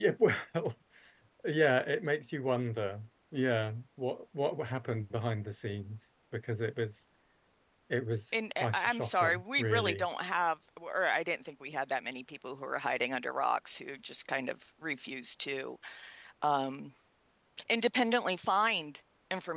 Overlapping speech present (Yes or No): Yes